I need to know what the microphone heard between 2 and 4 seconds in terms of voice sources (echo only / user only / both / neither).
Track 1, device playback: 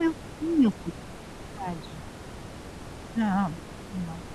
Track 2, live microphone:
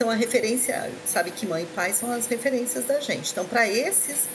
user only